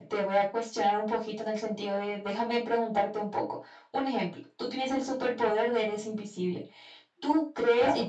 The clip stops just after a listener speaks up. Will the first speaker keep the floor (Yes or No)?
Yes